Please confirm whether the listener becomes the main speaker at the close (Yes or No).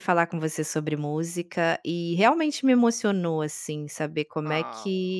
No